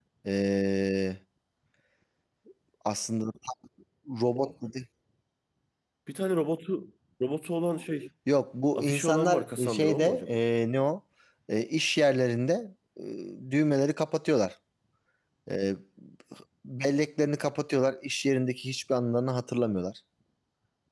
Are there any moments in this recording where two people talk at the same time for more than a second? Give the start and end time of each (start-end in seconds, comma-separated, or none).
8.8-10.4